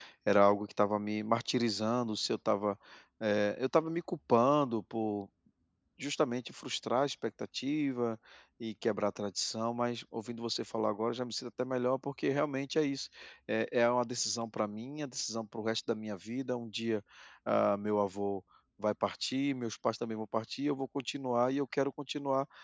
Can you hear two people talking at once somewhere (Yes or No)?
No